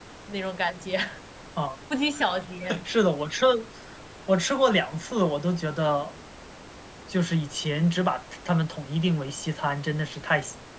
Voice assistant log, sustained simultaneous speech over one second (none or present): none